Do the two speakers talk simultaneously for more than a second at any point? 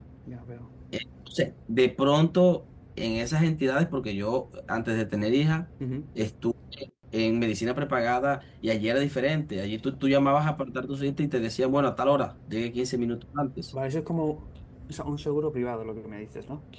No

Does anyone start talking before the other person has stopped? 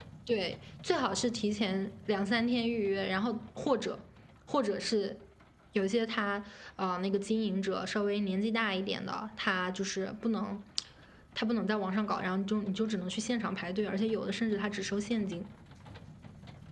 No

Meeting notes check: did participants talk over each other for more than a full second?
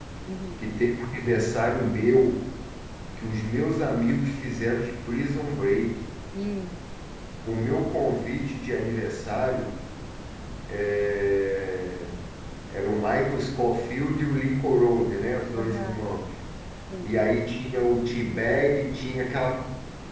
No

